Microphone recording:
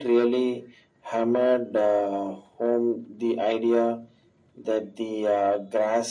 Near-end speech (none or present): none